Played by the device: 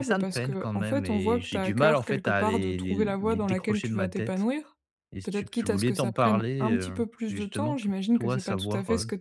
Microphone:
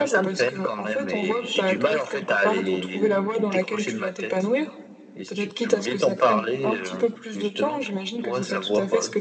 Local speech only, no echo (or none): none